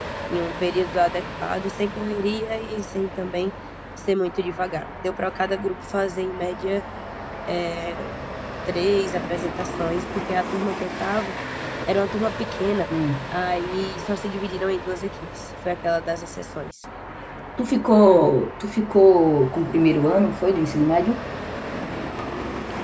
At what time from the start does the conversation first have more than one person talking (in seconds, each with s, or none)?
none